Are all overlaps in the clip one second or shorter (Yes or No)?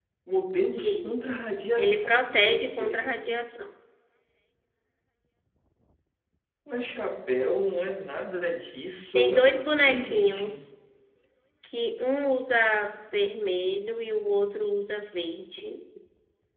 No